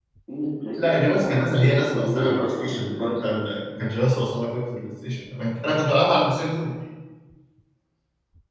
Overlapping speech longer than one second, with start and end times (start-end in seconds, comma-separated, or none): 0.8-3.3